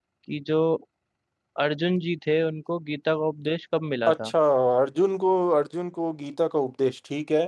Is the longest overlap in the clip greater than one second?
No

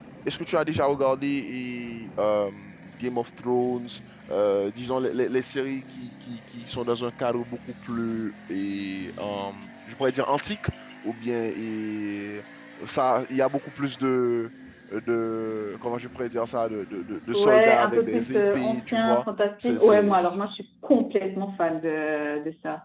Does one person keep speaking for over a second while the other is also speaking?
Yes, from 17.3 s

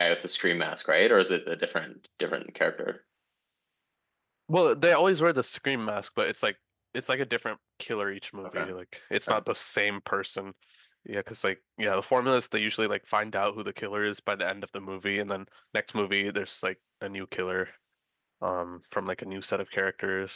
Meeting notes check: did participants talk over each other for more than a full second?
No

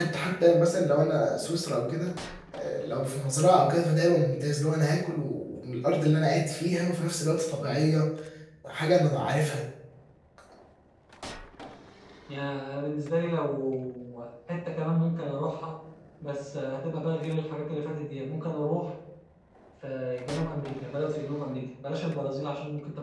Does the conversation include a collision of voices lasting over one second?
No

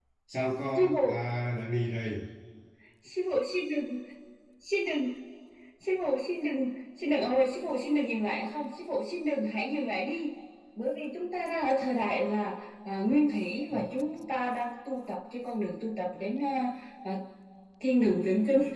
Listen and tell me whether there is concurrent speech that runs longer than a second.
No

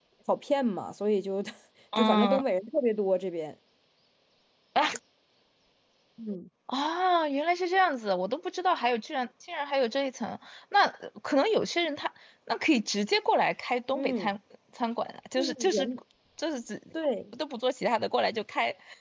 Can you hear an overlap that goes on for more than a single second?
No

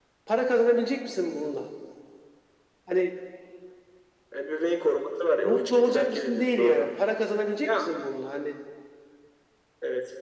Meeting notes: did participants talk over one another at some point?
Yes, from 5.4 s

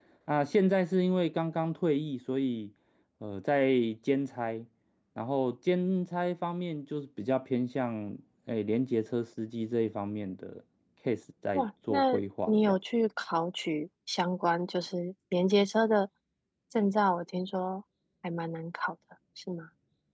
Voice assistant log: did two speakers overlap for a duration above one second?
Yes, from 11.5 s

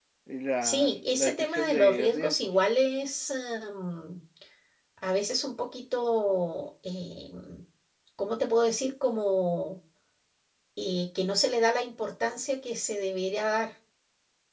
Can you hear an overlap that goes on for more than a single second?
Yes, from 0.6 s

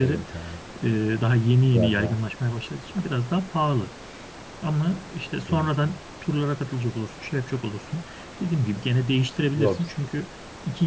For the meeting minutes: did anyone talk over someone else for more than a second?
No

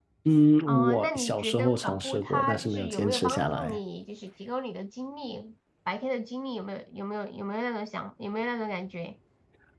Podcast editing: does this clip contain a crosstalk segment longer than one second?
Yes, from 0.7 s

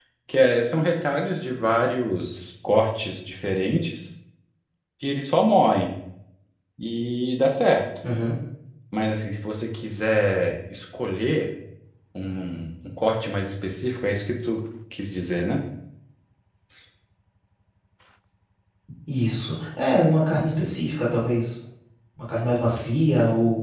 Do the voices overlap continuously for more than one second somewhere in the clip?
No

